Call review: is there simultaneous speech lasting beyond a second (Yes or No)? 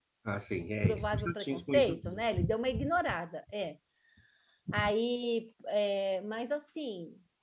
Yes